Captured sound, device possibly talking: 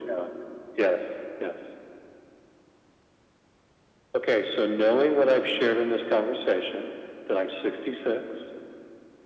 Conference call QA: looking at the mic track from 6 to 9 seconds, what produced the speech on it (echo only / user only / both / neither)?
echo only